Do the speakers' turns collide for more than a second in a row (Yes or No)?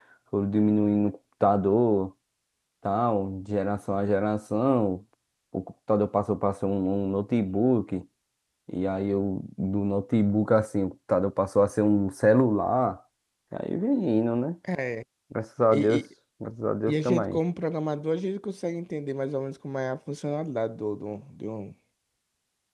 No